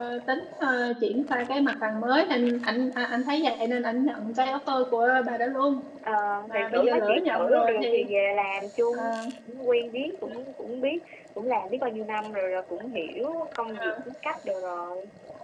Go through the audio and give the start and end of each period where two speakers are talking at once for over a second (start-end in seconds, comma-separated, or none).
6.5-8.1